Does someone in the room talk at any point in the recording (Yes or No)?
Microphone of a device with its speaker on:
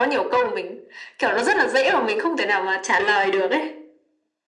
No